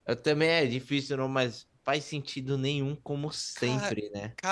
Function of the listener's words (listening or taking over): taking over